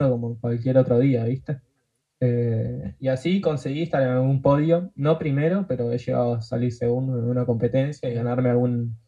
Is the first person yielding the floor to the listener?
No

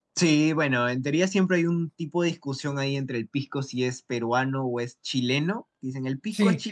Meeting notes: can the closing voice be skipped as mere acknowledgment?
Yes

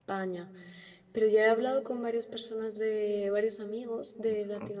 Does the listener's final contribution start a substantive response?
No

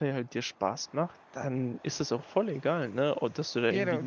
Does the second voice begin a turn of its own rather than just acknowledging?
No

